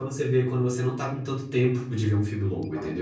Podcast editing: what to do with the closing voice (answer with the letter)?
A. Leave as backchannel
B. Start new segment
B